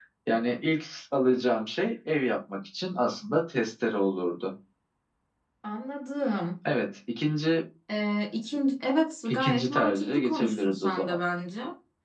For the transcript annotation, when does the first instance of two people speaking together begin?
9.2 s

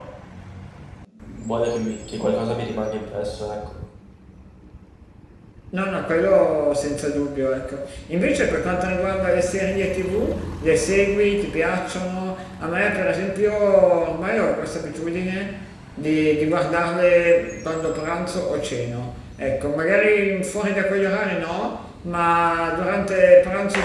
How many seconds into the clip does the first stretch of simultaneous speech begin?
none

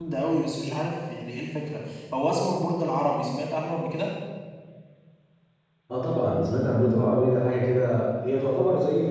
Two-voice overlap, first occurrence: none

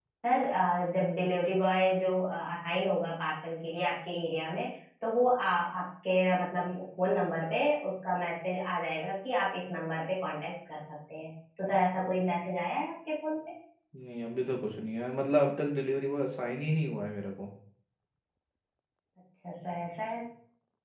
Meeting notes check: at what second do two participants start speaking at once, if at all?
none

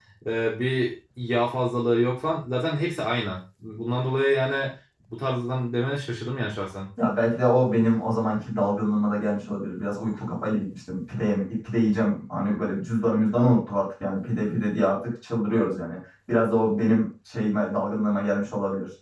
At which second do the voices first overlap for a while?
none

